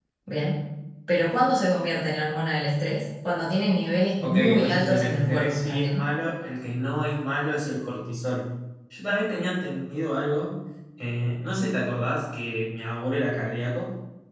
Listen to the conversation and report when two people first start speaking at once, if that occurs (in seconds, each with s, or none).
4.2 s